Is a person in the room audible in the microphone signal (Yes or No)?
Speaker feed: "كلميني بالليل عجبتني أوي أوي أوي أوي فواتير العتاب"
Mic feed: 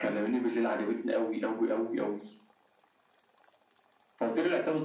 No